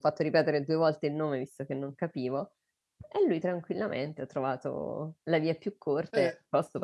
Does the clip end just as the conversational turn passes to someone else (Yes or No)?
Yes